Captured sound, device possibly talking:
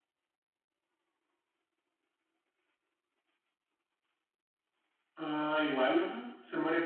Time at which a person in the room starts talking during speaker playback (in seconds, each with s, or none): 5.1 s